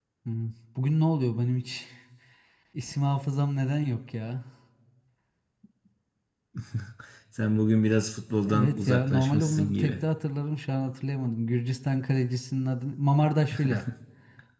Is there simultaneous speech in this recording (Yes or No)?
Yes